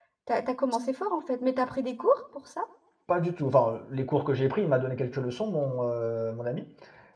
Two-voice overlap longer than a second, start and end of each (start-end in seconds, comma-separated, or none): none